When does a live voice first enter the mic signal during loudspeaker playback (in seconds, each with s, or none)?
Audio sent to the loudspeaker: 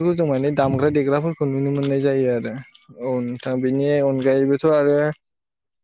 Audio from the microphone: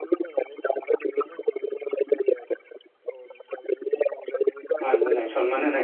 4.8 s